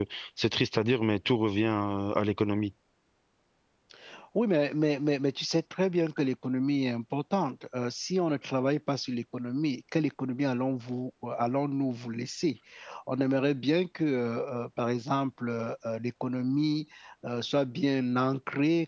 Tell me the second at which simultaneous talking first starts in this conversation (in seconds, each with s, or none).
none